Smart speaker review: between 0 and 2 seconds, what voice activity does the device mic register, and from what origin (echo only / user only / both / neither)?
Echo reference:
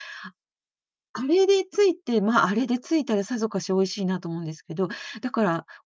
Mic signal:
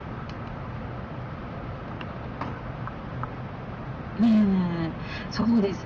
neither